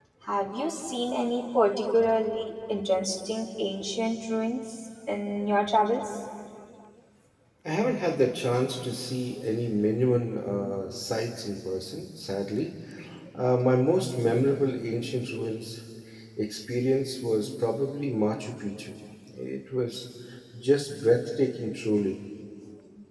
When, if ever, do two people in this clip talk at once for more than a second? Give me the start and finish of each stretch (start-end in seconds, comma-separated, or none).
none